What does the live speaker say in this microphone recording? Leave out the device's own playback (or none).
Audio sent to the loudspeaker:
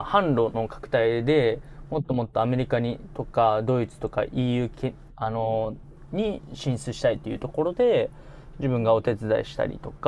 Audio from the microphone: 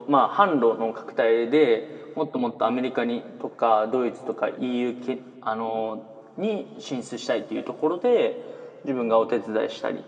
none